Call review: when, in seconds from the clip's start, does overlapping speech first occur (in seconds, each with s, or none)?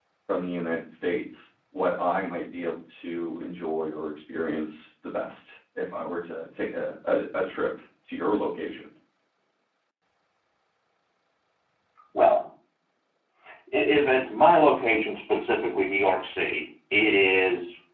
none